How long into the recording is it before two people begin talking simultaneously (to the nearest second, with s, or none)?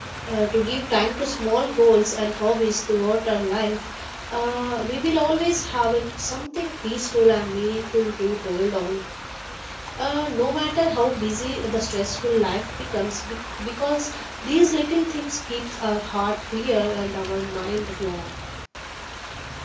none